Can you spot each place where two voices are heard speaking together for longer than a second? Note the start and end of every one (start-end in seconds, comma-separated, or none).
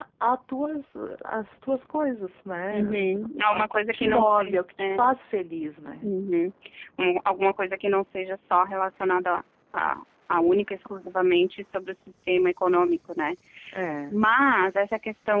2.7-4.8